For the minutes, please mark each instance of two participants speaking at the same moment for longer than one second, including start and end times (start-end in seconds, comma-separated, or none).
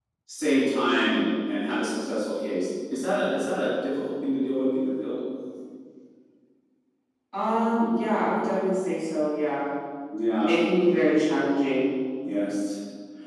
none